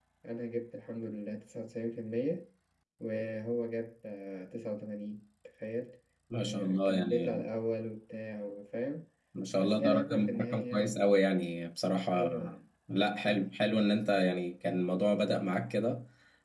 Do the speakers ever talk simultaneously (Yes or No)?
Yes